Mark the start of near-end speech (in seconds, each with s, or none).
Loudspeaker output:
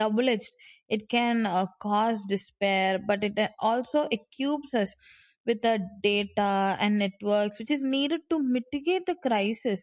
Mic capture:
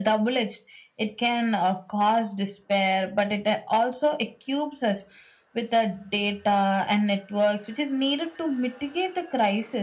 none